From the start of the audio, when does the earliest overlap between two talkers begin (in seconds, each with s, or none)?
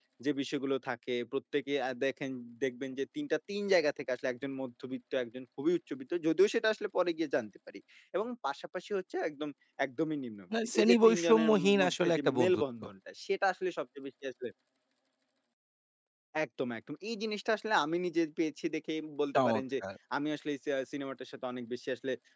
10.7 s